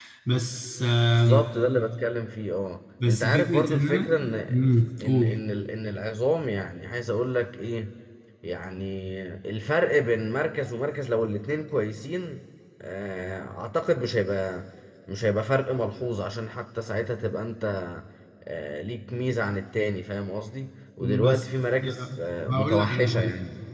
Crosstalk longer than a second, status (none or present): present